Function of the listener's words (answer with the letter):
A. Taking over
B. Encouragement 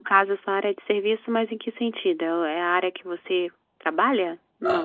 A